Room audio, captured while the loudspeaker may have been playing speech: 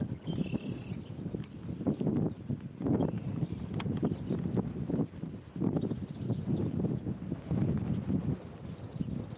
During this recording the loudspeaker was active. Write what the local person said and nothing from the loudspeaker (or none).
none